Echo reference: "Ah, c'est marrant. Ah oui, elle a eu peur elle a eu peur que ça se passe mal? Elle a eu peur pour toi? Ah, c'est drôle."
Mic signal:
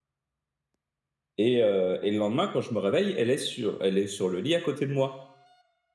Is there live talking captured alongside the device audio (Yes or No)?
Yes